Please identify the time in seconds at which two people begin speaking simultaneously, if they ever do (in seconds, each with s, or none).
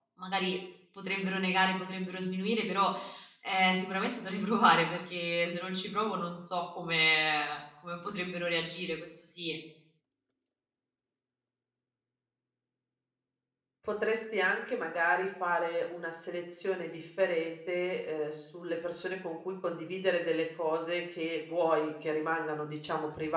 none